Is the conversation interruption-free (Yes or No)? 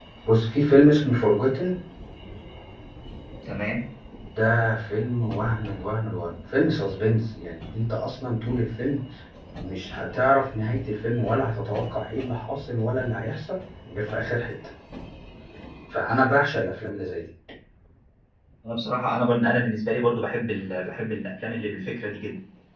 Yes